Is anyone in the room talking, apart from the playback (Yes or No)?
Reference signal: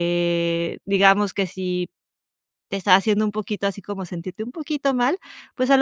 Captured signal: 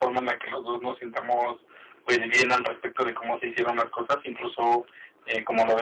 Yes